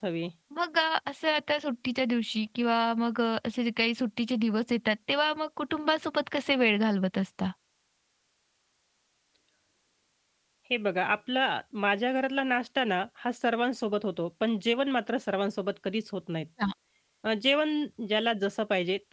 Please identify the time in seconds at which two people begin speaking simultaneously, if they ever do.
none

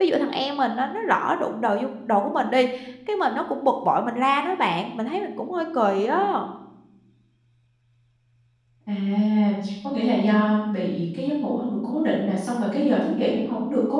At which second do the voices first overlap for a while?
none

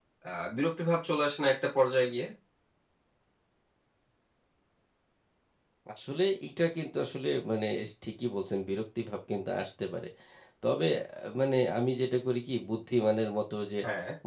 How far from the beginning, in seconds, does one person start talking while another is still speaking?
none

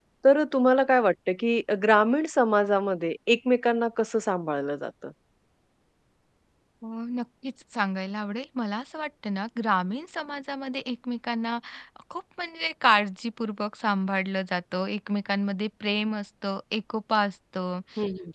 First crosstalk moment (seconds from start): none

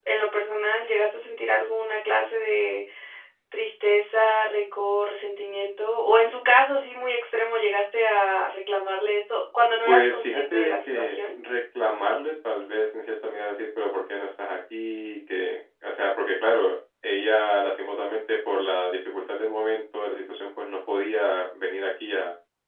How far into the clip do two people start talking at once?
9.8 s

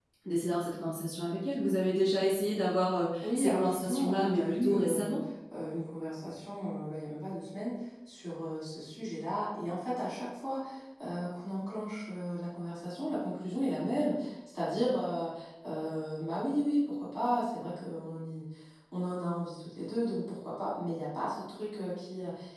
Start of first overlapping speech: 3.2 s

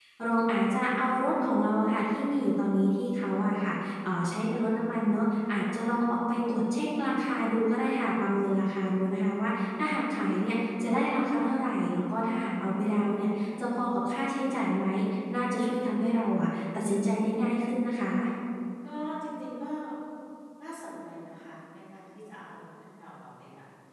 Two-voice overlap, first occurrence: none

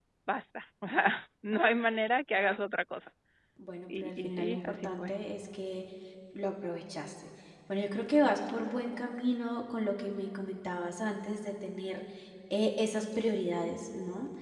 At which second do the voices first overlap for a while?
3.9 s

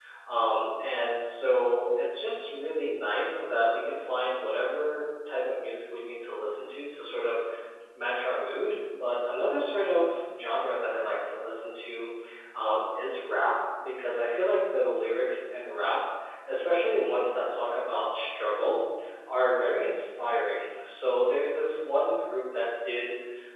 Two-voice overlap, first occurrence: none

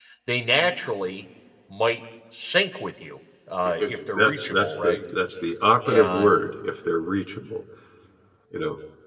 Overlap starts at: 3.6 s

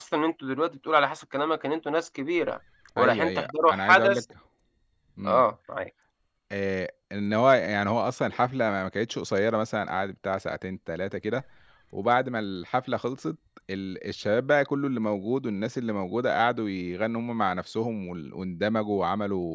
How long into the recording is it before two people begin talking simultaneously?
3.0 s

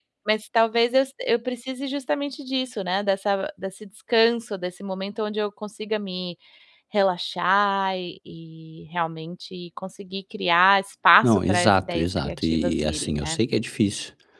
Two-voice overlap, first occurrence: 11.2 s

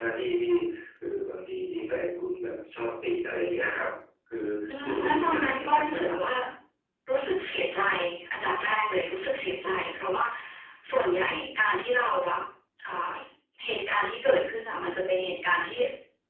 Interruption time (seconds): 4.8 s

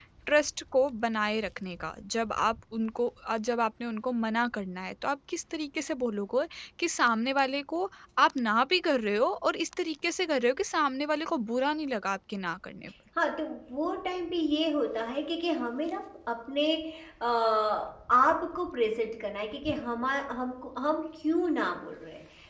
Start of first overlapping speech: none

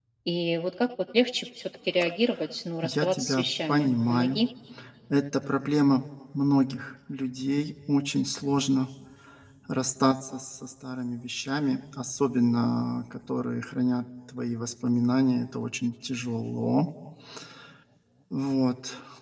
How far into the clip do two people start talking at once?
2.8 s

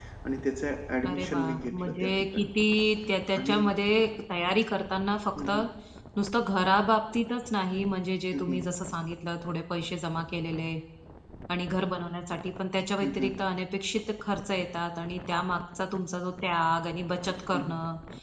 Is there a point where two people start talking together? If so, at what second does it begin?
1.1 s

